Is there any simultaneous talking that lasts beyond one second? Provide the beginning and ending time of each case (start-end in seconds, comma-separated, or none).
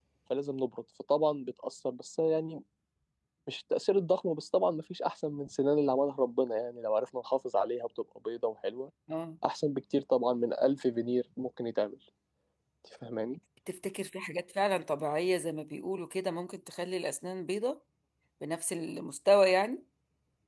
none